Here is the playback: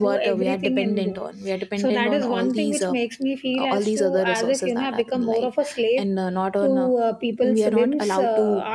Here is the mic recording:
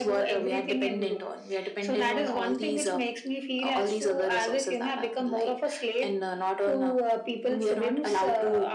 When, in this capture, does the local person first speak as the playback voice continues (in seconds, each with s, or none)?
none